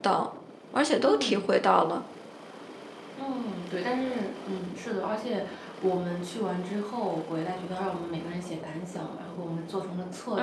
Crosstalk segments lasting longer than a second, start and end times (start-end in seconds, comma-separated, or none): none